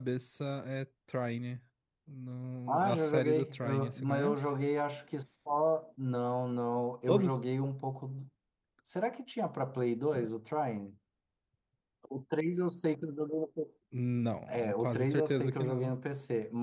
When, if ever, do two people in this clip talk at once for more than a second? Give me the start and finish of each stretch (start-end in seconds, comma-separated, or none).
2.7-4.5, 14.5-15.9